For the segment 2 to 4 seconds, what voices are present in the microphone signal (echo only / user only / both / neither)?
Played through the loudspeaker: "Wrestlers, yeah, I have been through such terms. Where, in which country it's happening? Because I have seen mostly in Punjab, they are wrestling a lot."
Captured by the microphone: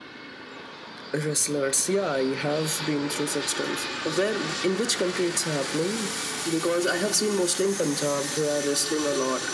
echo only